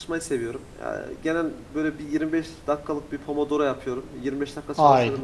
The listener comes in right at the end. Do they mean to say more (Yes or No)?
No